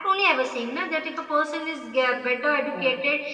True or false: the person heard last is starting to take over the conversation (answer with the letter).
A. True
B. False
B